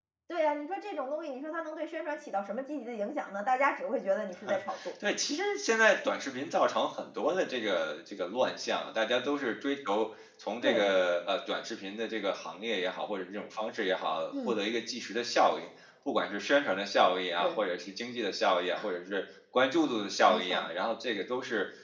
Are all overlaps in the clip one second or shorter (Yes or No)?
Yes